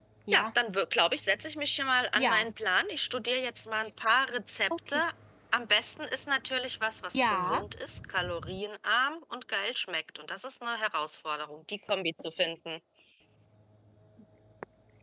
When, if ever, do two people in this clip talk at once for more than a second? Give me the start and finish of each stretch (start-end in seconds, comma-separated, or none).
none